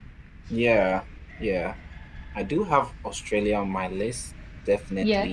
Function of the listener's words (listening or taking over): listening